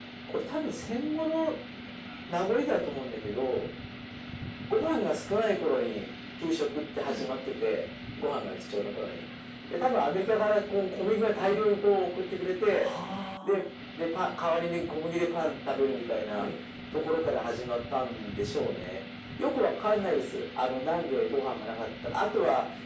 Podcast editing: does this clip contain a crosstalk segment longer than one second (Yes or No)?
No